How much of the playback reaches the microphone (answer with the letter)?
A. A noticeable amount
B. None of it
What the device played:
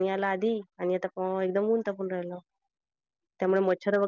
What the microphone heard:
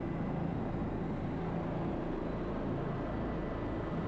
B